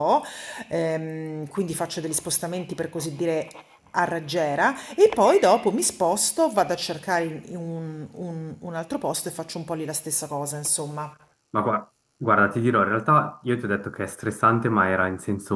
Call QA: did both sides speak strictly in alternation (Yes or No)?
Yes